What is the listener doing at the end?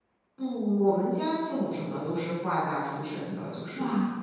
listening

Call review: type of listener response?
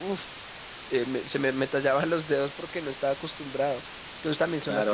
taking over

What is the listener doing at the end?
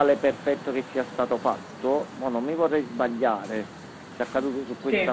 listening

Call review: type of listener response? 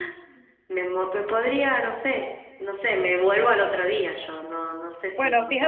taking over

